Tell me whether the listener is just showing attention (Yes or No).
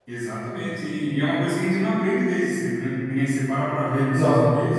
Yes